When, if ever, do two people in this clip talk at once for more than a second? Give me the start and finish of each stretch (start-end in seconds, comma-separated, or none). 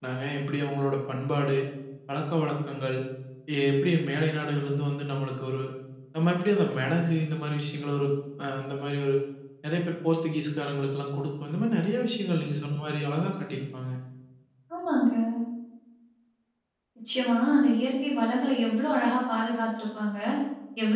none